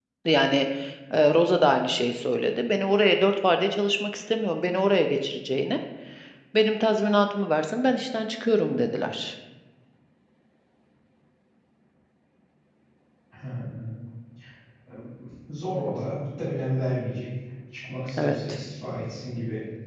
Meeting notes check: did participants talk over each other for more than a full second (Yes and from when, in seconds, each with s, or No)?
No